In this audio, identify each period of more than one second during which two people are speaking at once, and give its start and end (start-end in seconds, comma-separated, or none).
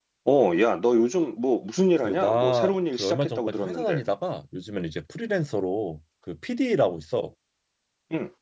2.0-4.0